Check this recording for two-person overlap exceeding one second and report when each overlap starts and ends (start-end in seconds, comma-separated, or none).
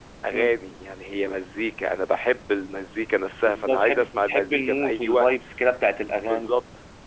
3.4-5.3